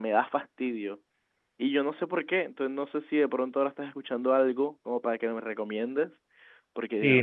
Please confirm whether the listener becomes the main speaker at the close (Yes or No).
Yes